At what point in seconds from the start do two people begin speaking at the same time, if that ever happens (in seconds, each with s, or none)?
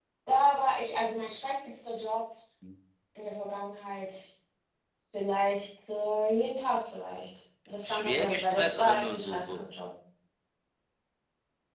7.8 s